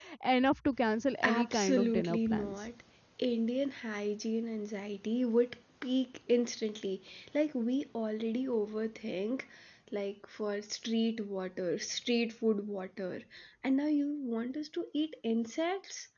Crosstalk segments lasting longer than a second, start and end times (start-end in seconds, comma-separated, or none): 1.2-2.6